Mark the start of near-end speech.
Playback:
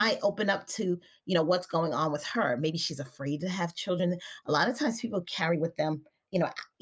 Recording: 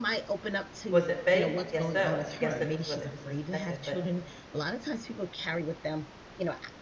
0.9 s

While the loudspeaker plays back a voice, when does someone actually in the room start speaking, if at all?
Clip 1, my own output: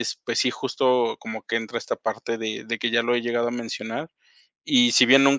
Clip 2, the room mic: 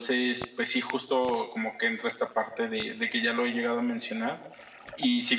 none

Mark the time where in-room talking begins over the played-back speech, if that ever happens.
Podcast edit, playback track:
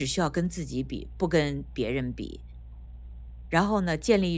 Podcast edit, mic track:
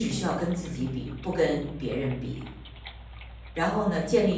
none

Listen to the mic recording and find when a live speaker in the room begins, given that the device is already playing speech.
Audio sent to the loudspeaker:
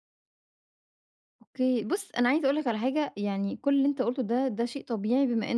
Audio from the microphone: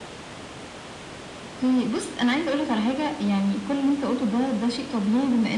none

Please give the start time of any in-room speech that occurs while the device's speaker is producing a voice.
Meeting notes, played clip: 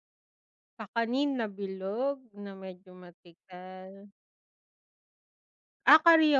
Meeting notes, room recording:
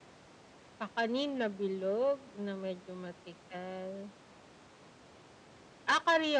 none

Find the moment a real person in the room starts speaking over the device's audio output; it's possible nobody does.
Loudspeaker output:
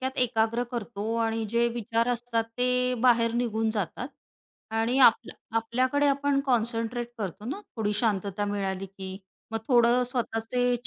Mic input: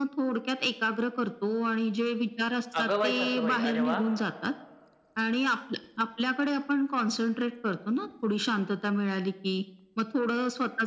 2.8 s

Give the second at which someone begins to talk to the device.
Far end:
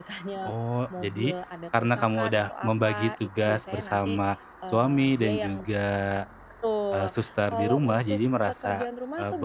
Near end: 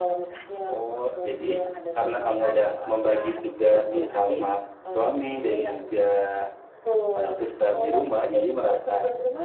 3.9 s

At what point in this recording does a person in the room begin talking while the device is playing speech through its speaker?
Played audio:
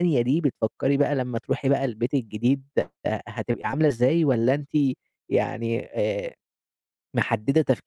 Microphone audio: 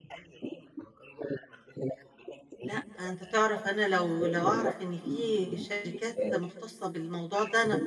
2.6 s

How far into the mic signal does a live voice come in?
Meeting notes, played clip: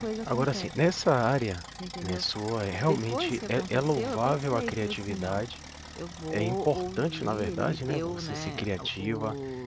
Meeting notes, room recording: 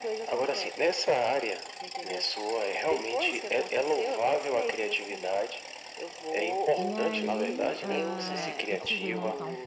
6.8 s

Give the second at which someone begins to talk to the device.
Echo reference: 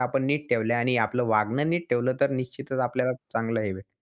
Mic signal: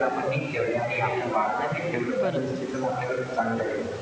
2.2 s

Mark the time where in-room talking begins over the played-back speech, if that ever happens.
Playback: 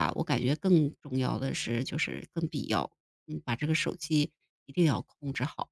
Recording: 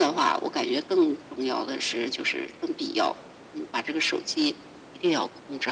none

